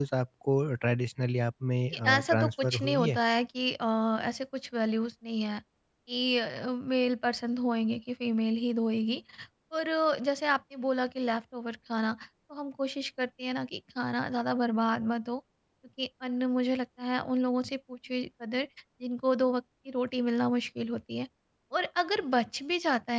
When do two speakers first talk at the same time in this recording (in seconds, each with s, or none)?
1.9 s